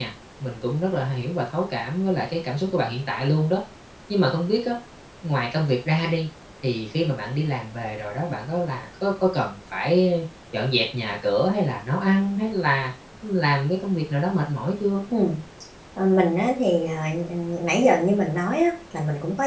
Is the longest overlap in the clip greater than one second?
No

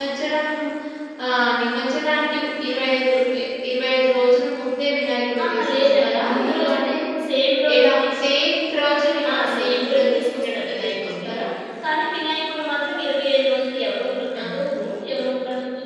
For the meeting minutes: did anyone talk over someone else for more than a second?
Yes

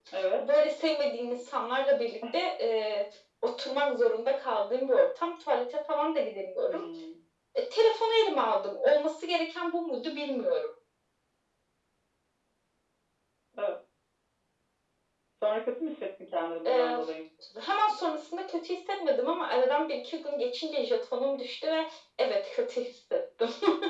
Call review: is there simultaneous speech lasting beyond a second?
No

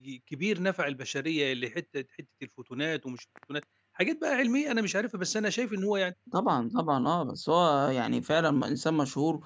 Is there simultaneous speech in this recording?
No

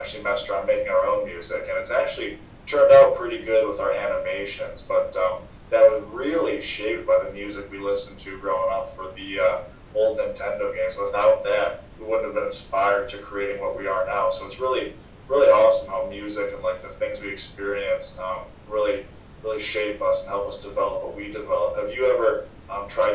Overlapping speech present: No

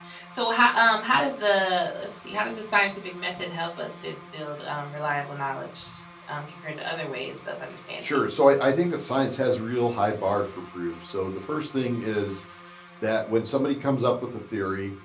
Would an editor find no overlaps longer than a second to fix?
Yes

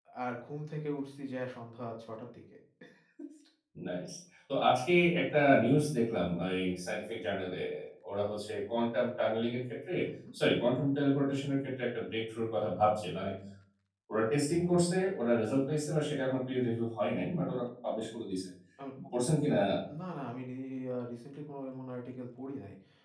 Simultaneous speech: No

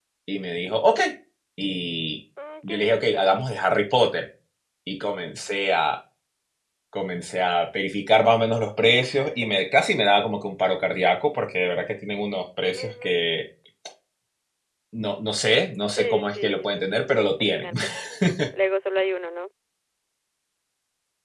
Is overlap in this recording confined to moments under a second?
No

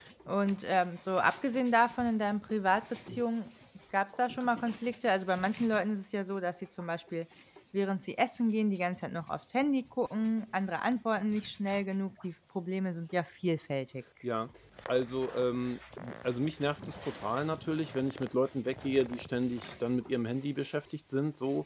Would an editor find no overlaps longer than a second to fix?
Yes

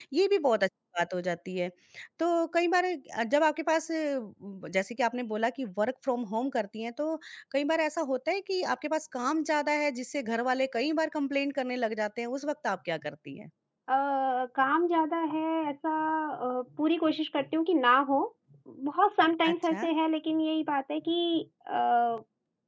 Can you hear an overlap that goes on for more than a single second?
No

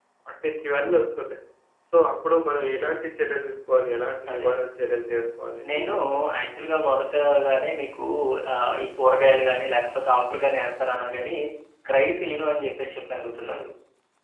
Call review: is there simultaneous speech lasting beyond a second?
No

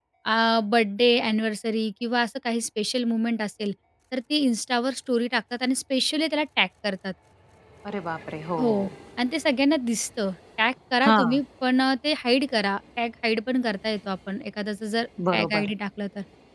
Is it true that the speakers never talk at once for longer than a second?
Yes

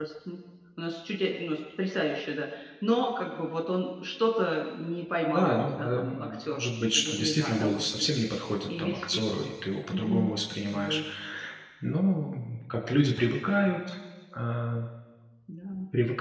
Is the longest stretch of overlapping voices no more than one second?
No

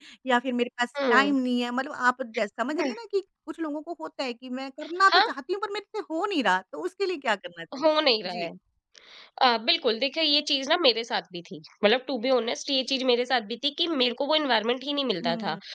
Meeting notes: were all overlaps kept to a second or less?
Yes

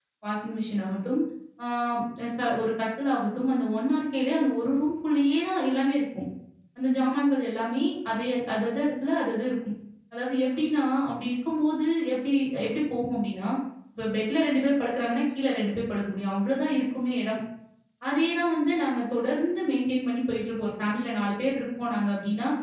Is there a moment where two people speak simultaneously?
No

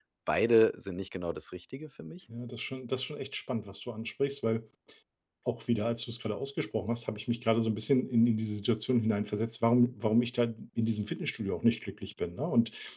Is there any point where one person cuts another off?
No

